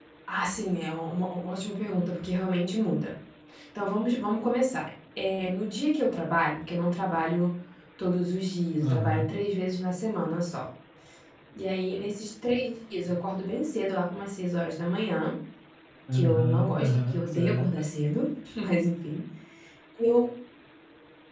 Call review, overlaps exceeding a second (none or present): present